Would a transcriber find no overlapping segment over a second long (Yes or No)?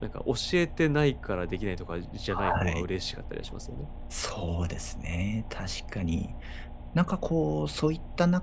Yes